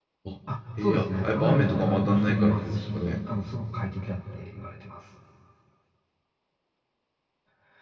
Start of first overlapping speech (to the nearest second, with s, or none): 1 s